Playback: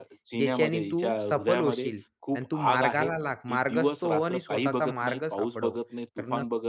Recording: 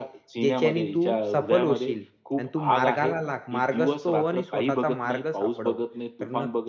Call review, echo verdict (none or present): present